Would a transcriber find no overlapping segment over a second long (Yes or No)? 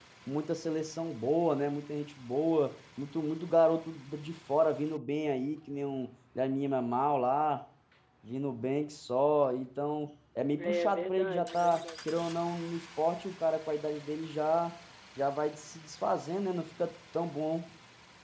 No